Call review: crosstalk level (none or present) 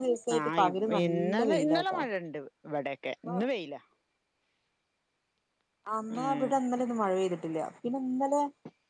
present